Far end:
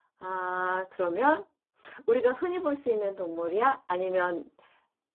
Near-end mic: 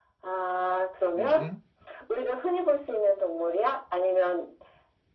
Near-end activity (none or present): present